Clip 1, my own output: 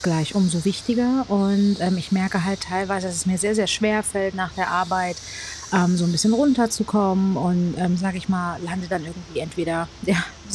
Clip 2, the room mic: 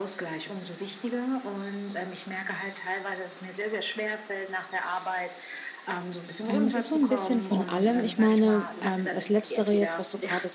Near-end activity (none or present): present